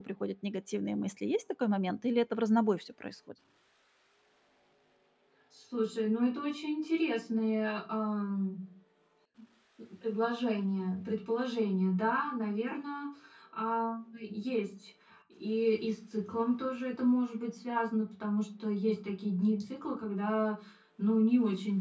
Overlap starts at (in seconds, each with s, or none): none